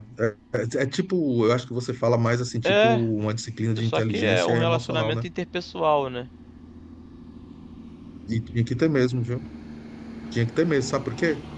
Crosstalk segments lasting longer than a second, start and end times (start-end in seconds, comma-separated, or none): 3.8-5.2